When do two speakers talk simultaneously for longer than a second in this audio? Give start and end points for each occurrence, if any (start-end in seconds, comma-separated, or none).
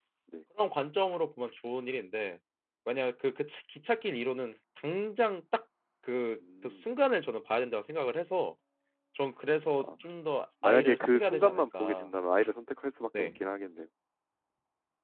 10.6-12.1